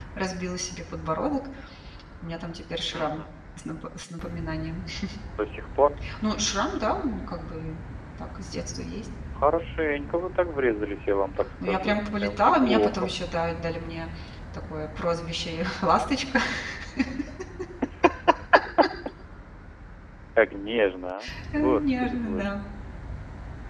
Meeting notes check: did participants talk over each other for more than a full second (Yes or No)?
Yes